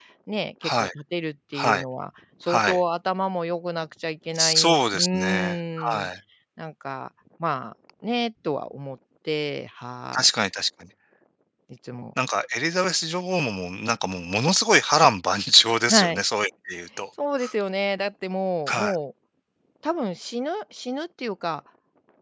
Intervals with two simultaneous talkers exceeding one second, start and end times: 4.3-6.1

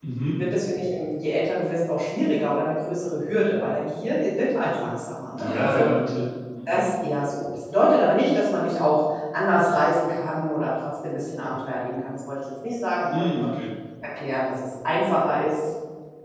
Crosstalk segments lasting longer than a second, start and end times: none

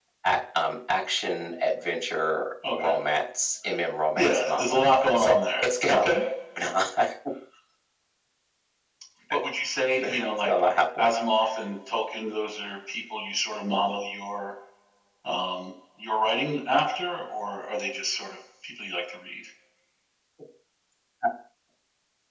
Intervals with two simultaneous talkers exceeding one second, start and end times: 4.2-6.0

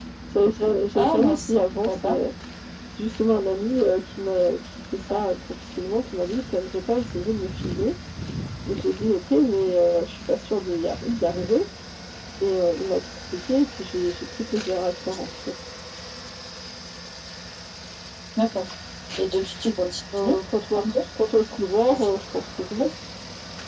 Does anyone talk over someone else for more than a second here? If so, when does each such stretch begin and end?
0.9-2.2

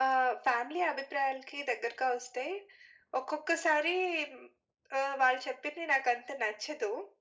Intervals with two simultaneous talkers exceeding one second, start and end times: none

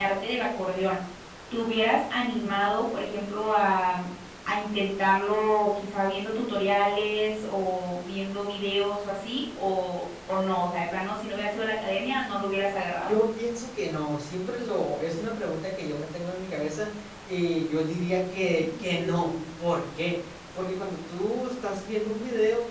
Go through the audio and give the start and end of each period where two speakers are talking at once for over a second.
none

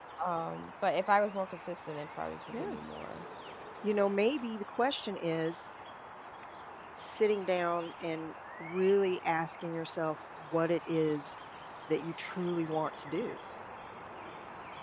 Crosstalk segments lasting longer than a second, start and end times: none

